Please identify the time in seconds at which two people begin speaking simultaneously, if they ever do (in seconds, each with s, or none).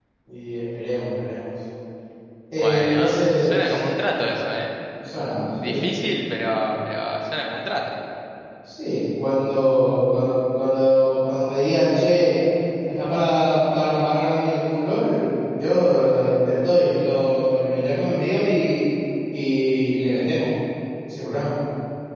2.6 s